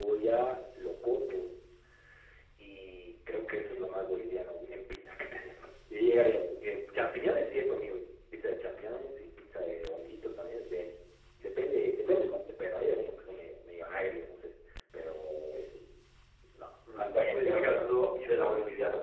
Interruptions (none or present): present